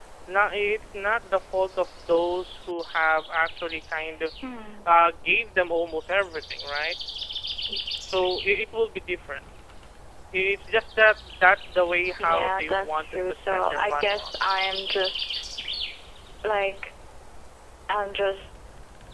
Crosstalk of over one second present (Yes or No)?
Yes